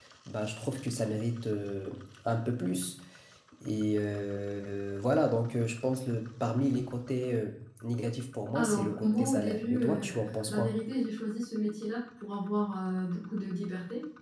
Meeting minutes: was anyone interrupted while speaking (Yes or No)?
Yes